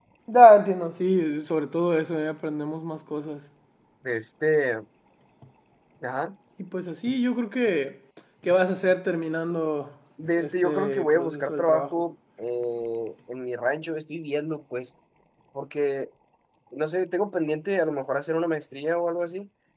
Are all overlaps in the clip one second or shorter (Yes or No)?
No